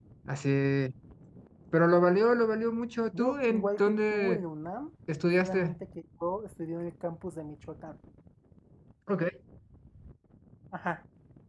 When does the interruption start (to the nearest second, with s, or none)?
3 s